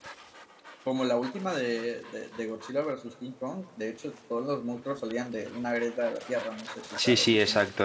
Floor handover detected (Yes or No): Yes